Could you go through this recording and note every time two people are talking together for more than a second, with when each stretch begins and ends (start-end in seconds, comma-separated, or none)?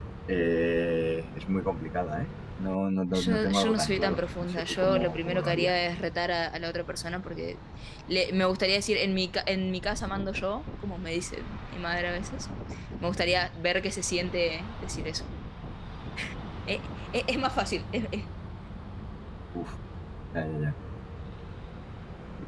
3.2-5.8